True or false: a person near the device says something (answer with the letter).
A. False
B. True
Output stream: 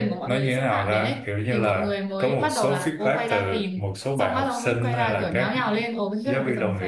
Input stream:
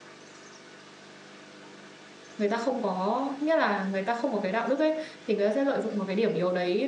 B